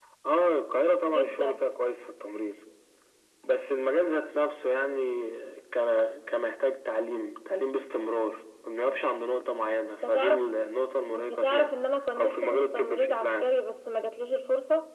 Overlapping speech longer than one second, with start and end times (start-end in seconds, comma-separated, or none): 12.2-13.5